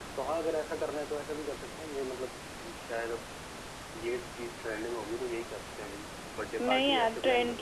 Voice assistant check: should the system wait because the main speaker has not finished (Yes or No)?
No